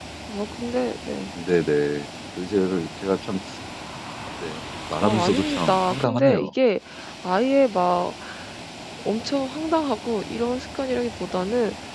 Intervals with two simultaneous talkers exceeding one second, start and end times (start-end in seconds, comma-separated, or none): 5.0-6.5